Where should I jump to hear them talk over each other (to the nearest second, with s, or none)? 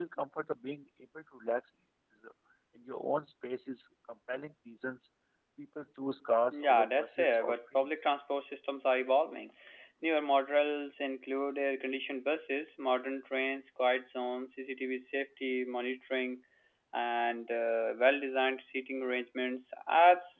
7 s